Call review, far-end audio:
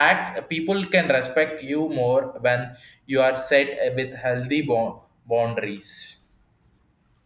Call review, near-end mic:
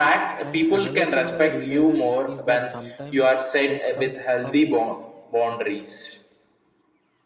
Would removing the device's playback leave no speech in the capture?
No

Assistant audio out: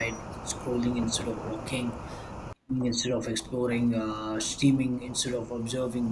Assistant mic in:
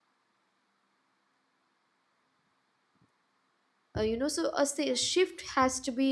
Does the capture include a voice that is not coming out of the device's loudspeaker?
Yes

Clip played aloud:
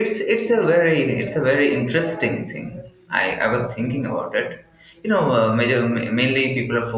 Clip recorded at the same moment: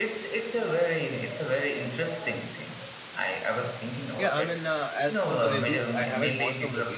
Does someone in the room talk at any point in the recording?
Yes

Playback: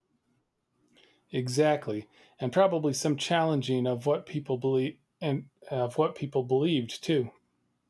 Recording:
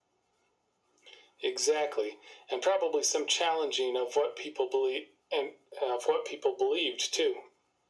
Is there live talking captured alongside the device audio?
No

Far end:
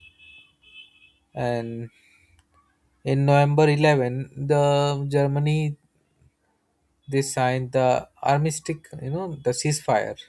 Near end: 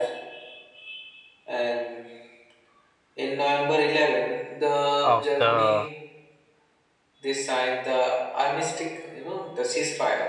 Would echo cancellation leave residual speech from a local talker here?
Yes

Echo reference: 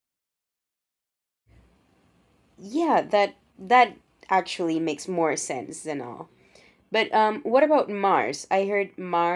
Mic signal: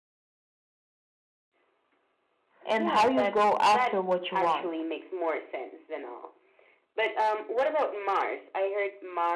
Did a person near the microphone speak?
Yes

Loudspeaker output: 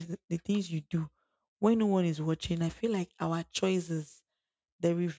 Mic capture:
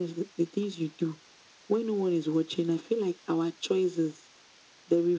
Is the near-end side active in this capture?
No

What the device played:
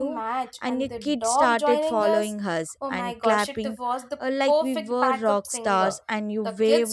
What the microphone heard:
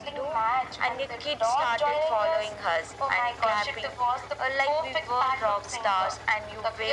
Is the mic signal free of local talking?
Yes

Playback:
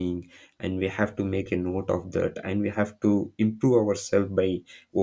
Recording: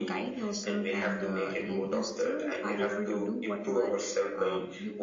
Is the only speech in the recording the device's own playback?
No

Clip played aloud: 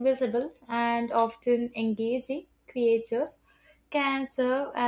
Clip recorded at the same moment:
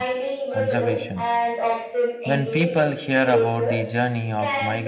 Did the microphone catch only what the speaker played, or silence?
No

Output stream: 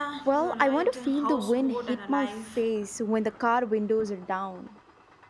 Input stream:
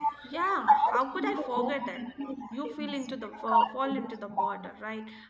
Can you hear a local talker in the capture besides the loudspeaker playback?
Yes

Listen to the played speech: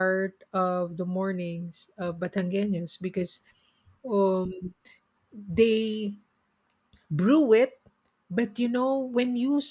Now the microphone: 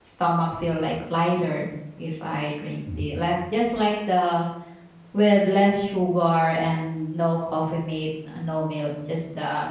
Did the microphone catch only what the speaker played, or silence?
No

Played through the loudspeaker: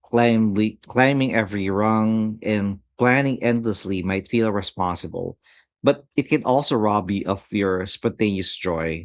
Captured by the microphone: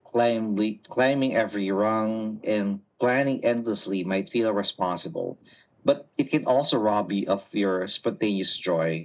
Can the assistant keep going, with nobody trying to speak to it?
Yes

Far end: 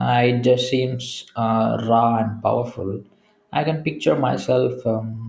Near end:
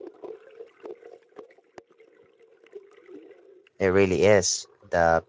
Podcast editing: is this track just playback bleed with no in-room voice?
No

